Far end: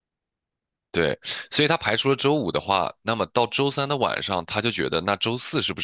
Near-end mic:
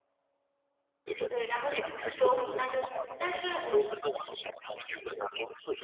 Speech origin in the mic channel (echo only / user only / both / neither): both